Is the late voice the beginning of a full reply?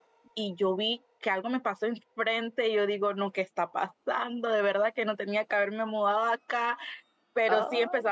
No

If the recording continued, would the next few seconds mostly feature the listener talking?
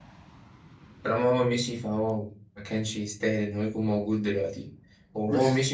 No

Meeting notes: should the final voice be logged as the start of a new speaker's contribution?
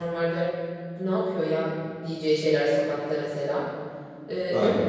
No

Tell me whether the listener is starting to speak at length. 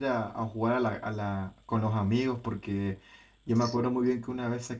No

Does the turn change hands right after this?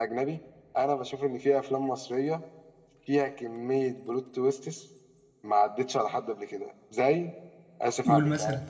Yes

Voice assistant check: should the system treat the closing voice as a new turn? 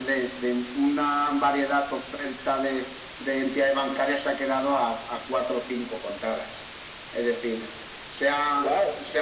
No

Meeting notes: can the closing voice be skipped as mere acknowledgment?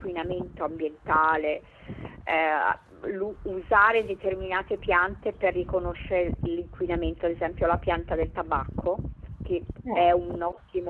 Yes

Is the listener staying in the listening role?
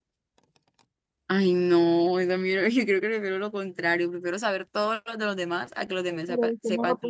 No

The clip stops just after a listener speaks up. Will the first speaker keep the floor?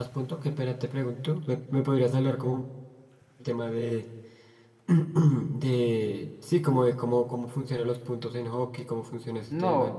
No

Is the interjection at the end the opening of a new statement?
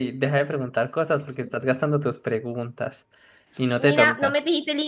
Yes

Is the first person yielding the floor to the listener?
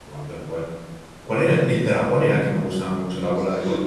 Yes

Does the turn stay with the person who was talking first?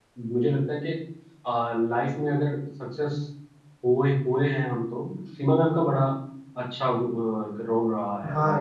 No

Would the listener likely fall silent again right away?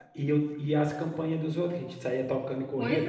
No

